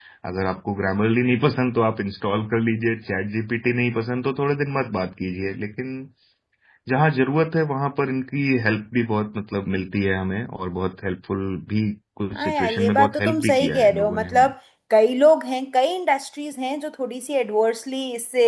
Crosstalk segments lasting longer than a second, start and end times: 12.3-14.5

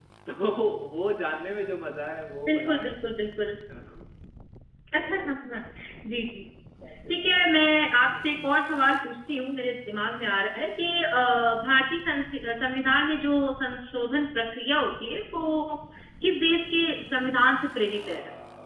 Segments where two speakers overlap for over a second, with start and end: none

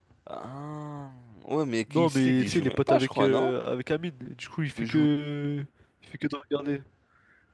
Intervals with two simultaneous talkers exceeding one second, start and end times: 1.9-3.5

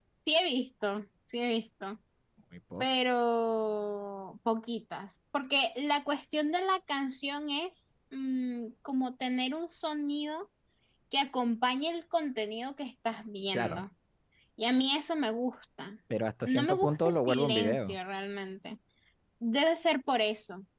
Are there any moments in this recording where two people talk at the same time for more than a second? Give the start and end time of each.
16.5-18.0

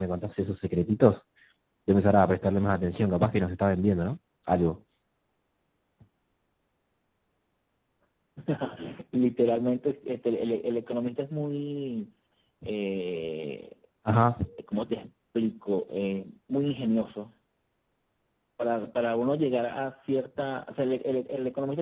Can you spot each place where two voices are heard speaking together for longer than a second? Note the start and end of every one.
none

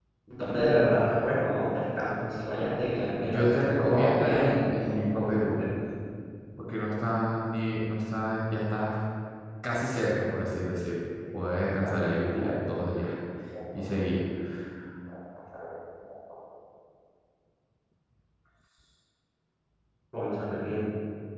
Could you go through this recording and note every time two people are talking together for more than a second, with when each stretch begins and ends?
3.2-4.6

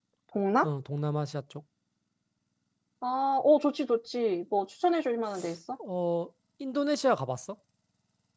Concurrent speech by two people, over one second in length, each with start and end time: none

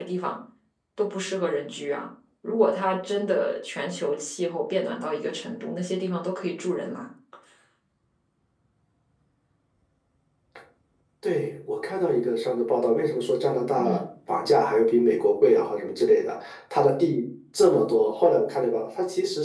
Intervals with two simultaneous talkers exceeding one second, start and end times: none

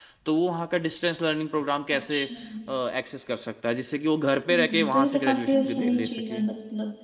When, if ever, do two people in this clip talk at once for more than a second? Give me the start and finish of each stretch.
4.5-6.4

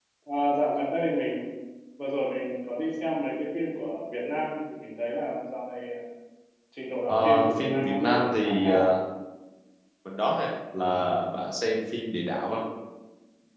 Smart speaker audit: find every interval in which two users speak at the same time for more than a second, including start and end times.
7.1-8.9

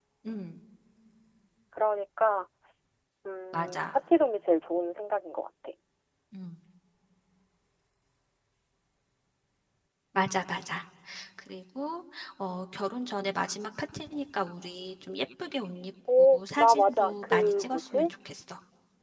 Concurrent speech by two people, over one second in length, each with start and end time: 16.3-18.1

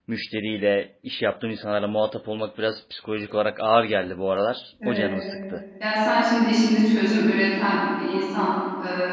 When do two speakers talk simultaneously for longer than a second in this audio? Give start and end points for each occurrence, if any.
none

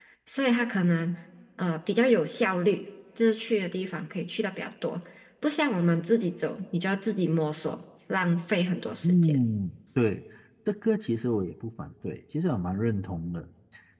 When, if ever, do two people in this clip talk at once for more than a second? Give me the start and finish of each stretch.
none

